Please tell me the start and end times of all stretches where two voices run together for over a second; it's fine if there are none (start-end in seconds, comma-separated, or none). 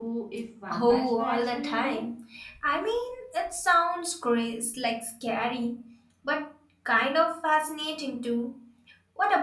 0.7-2.0